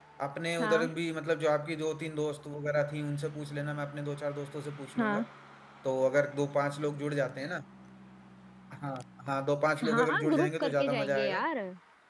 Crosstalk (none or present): present